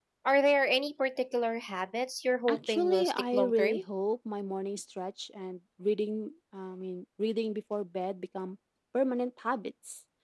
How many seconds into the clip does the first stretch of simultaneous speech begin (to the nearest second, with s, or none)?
2 s